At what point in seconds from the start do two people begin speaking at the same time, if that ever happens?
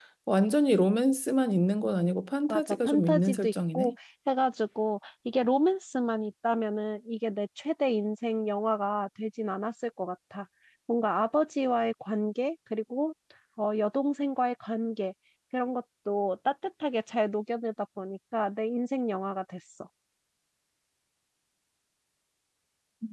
2.5 s

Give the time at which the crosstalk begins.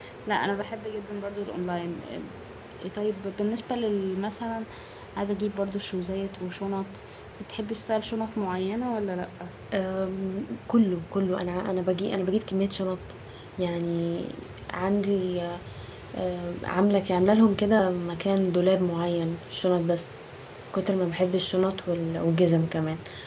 none

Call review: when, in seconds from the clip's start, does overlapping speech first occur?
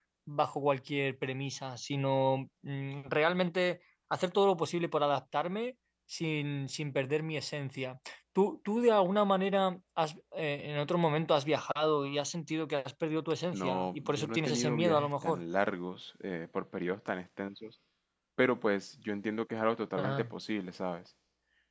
13.5 s

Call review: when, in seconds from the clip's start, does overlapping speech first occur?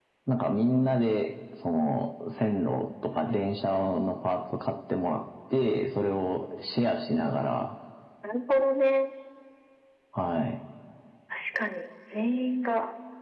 none

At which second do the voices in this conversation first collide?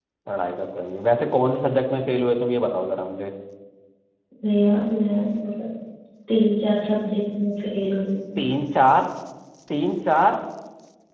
none

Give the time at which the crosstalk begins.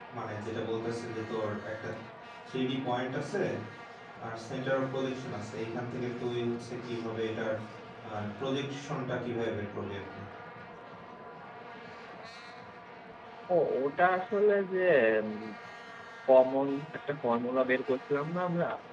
none

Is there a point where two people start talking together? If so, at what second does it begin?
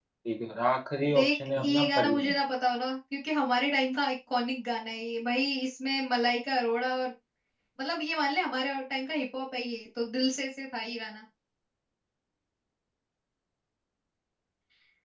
1.1 s

